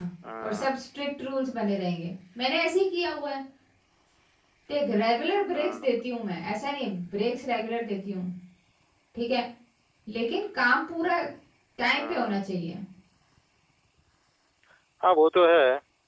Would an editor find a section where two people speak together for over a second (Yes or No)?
No